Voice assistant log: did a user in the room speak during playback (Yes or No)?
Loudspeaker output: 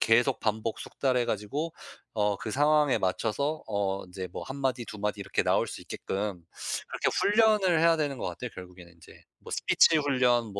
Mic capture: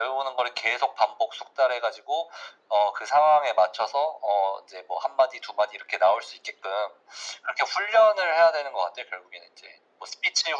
No